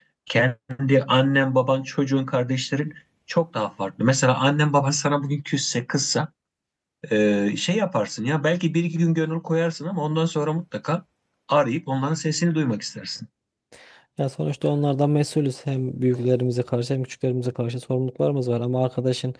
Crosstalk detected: No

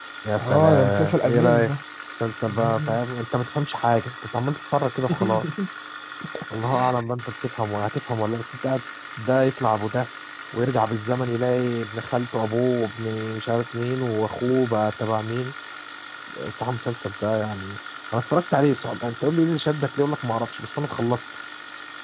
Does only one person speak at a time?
No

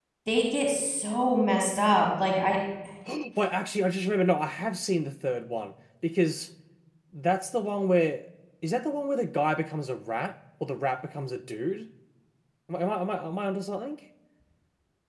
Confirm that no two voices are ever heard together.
Yes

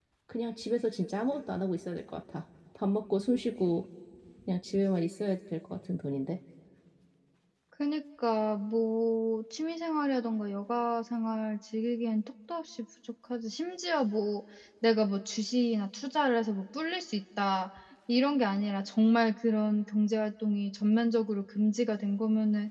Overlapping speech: No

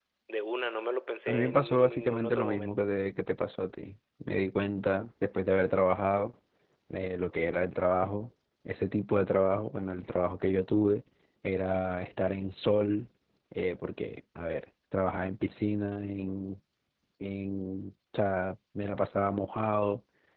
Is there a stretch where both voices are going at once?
Yes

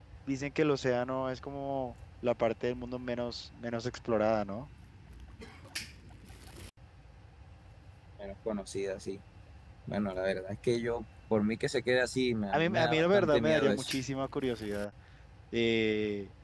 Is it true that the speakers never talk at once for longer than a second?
No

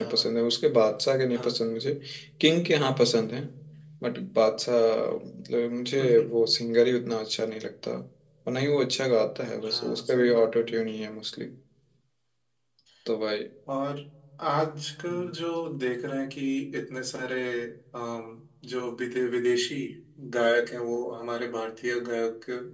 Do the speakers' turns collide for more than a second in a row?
Yes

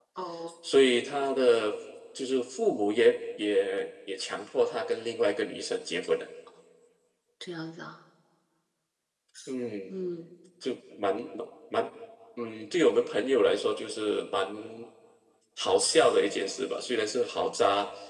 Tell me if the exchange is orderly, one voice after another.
Yes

